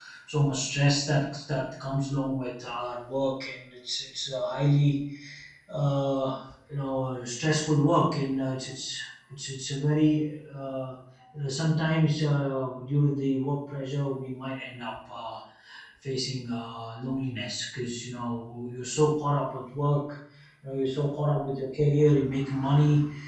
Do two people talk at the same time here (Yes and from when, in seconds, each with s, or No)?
No